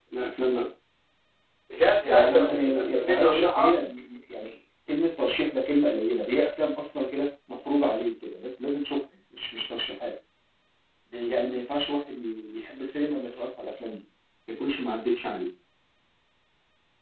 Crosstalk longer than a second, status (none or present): present